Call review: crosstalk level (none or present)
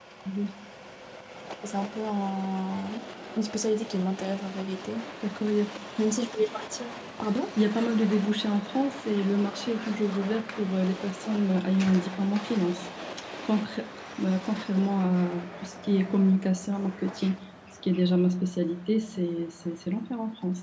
none